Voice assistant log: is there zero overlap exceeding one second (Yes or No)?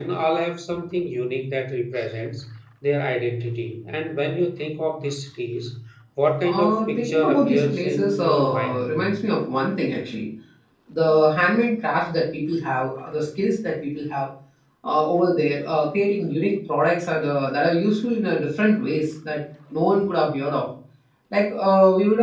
No